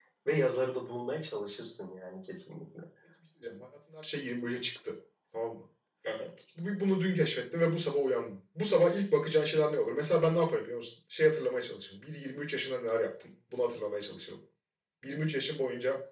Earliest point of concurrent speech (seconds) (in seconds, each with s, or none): none